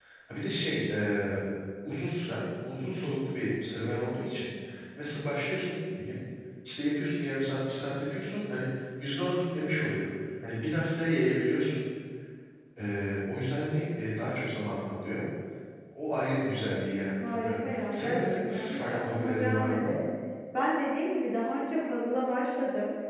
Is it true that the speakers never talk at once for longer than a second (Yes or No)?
No